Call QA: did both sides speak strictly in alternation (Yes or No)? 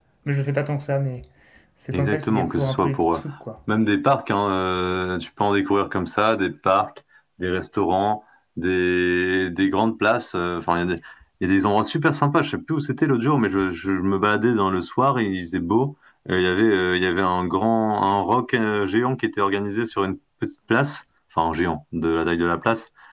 No